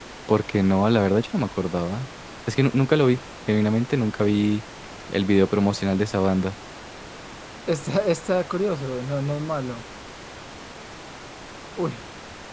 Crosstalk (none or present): none